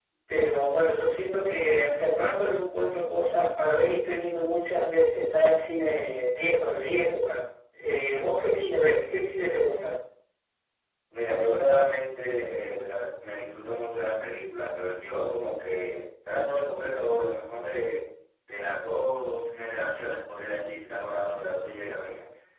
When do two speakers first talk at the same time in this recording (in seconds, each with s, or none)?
none